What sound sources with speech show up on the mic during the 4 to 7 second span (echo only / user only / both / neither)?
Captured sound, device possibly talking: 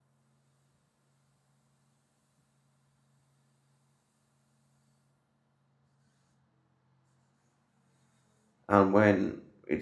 neither